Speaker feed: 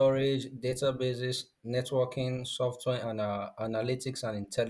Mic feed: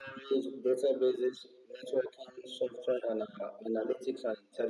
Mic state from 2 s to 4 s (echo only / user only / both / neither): echo only